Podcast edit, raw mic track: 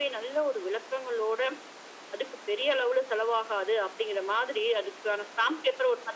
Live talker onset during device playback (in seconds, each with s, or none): none